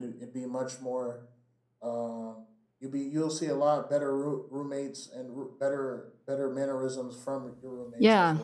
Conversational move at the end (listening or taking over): taking over